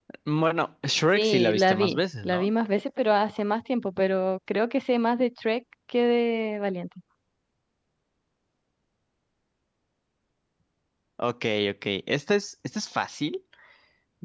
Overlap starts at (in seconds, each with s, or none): 1.1 s